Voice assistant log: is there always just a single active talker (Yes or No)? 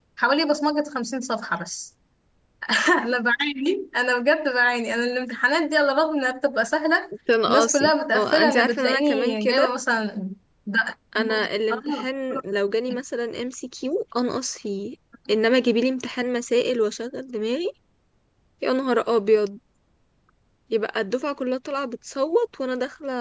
No